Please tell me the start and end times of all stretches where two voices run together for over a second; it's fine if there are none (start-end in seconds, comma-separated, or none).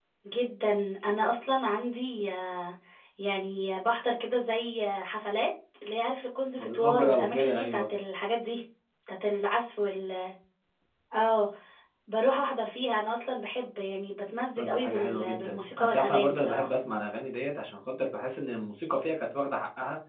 6.6-7.9, 14.6-16.7